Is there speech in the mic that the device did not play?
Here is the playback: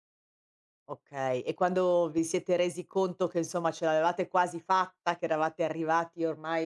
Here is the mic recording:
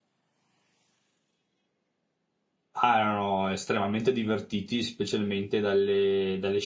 Yes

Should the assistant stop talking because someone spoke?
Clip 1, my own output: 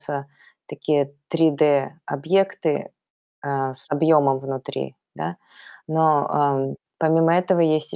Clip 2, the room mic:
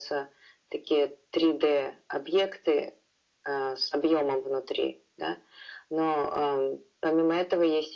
No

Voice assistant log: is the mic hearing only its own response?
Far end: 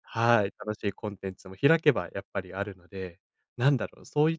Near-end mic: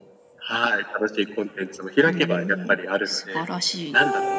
No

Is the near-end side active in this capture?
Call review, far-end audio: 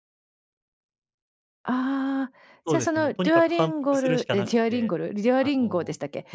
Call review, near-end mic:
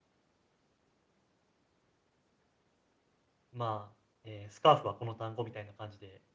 Yes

